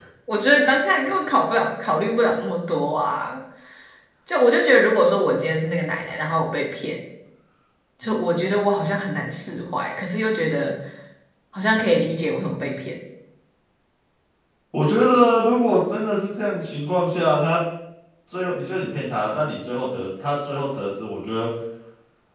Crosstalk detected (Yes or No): No